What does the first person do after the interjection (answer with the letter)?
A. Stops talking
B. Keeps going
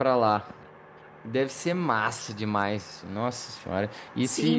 A